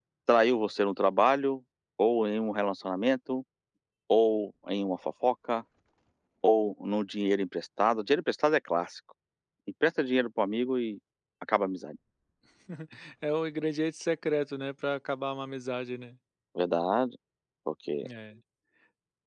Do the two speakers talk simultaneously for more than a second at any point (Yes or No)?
No